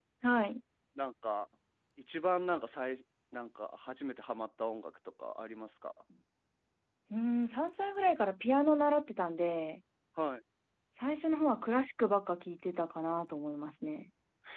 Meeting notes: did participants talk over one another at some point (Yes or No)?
No